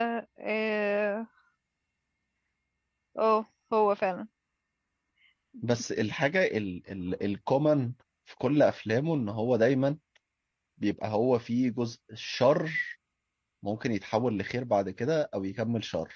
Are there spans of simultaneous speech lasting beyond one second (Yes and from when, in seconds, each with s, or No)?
No